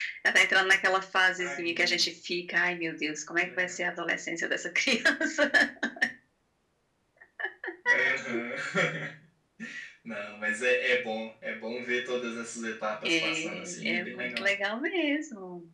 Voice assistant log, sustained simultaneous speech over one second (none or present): present